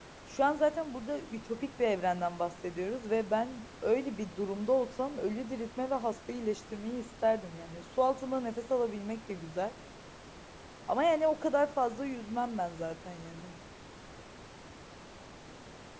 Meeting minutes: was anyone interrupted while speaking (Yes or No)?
No